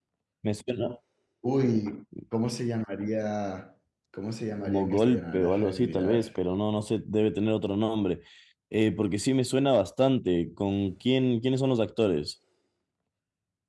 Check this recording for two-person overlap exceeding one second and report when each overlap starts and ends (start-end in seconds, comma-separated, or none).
4.6-6.3